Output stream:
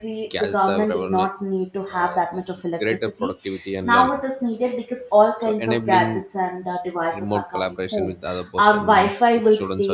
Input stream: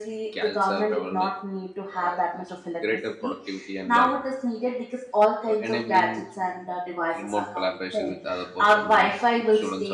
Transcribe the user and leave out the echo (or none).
none